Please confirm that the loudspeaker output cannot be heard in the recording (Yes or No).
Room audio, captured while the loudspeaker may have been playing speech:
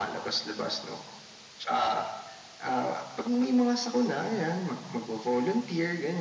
No